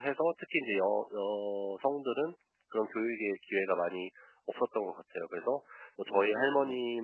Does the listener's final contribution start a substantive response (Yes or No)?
No